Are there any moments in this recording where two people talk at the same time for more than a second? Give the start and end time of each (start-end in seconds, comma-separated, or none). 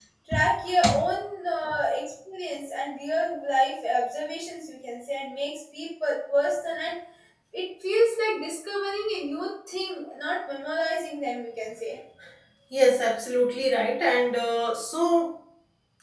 none